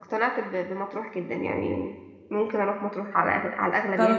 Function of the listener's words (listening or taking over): taking over